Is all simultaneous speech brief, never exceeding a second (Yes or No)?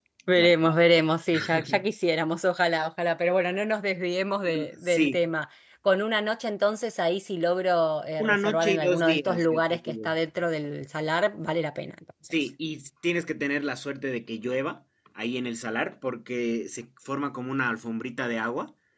No